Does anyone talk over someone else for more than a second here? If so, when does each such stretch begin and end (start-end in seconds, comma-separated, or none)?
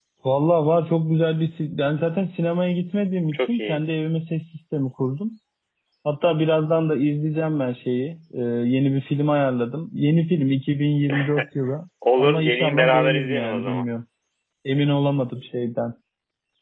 12.2-13.8